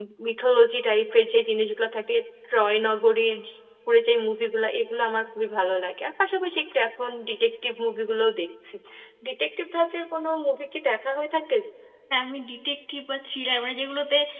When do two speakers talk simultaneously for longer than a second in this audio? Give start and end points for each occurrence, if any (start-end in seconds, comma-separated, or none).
none